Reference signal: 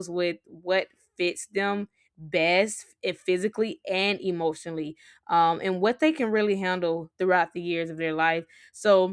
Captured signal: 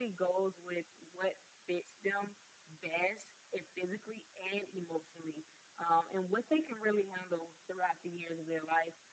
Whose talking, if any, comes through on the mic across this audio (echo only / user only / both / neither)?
echo only